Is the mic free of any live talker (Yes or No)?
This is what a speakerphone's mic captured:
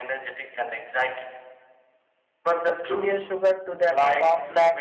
No